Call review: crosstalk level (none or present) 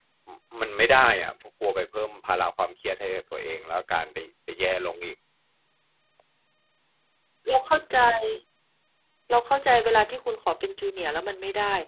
none